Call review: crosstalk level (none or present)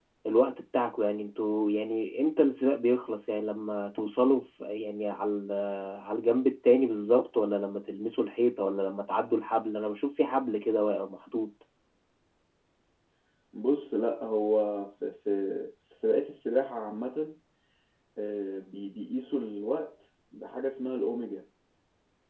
none